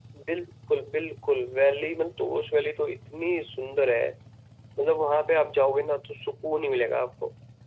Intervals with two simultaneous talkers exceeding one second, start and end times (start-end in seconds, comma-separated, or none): none